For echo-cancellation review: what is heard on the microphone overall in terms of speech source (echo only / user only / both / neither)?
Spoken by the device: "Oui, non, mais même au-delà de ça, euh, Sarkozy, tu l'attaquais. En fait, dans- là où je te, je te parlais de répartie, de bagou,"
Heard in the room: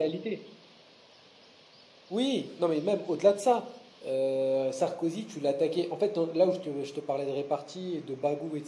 echo only